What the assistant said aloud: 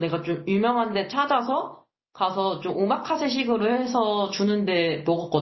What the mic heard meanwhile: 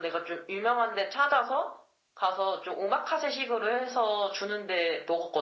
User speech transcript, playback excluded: none

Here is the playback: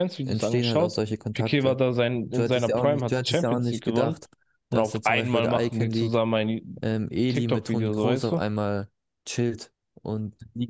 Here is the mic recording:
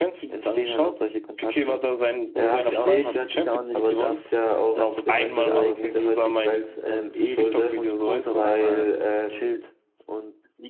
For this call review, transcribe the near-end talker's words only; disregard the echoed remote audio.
Ja, verstehe ich. Aber das ist ja auch ein bisschen so der heutigen Welt ähm, zur Schulde, weil ähm,

